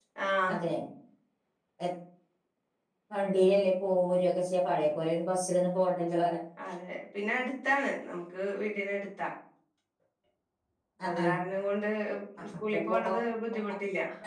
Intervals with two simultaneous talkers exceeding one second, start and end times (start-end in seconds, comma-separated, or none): none